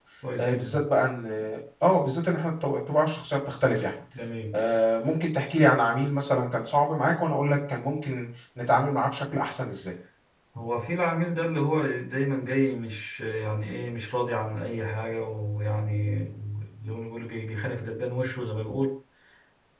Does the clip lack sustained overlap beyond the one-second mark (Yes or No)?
Yes